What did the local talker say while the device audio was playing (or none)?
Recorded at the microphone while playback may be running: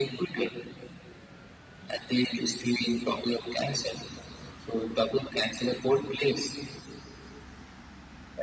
none